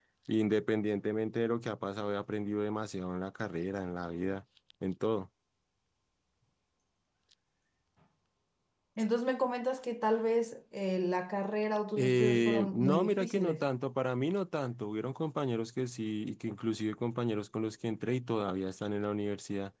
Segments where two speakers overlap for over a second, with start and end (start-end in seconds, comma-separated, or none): 12.0-13.7